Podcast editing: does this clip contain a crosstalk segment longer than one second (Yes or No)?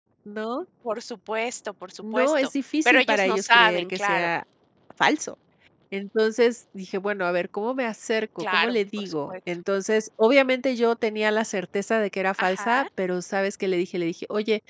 Yes